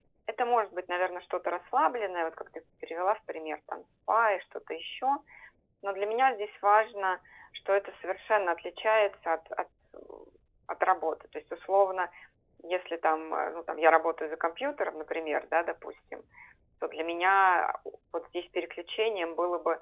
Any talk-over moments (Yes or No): No